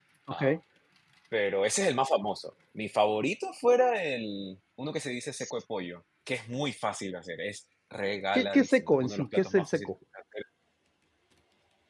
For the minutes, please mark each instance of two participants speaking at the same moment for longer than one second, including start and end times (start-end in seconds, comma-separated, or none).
8.3-9.9